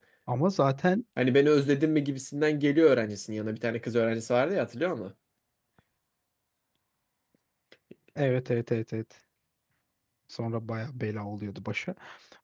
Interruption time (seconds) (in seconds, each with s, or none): none